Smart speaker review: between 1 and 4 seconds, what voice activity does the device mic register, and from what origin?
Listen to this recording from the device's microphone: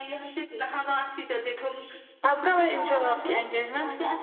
both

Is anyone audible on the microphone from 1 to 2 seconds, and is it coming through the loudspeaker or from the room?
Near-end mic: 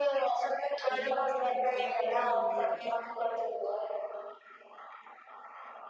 both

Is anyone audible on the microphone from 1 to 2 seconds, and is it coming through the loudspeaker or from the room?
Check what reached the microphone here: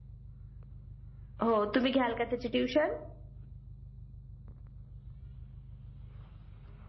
user only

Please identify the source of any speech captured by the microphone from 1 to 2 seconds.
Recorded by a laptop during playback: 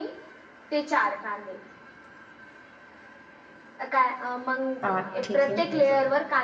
echo only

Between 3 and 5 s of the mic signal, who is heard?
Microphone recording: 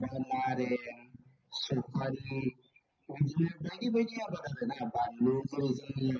echo only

